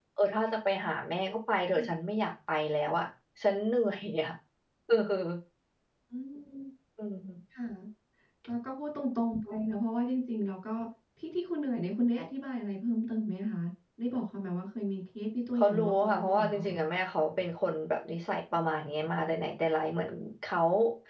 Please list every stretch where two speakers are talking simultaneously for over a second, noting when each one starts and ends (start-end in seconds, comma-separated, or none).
15.6-16.8